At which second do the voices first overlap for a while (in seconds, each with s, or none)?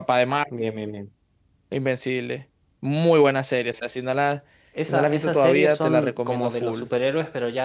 4.8 s